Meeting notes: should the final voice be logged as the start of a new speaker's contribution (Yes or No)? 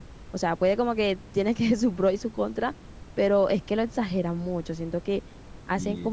No